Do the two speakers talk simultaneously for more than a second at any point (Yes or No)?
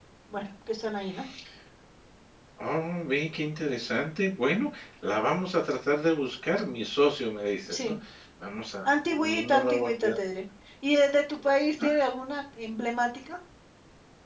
Yes